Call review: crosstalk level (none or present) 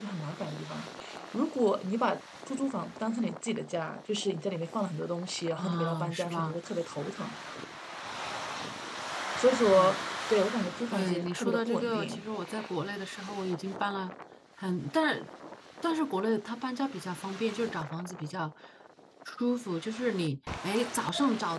present